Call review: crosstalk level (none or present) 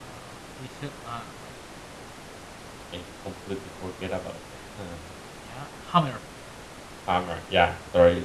none